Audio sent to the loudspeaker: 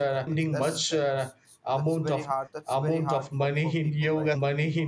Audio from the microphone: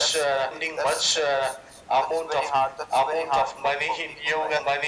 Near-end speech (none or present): none